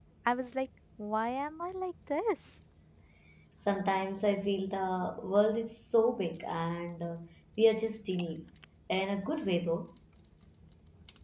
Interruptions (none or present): none